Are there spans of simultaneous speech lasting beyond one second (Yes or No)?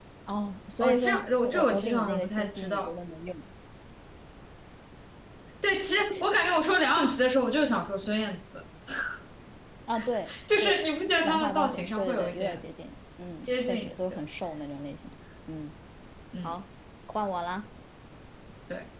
Yes